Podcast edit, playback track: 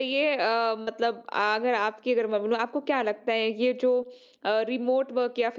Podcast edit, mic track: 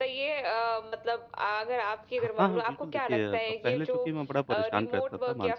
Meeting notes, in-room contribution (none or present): present